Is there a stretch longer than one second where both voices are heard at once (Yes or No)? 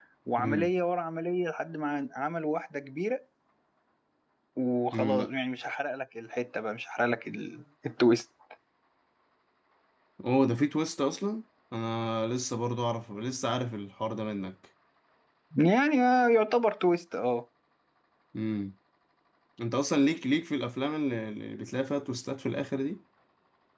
No